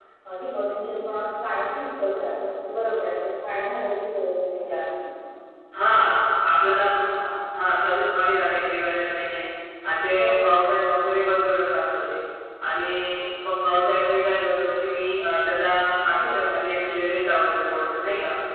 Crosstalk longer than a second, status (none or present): none